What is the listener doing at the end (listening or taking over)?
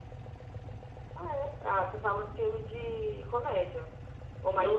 taking over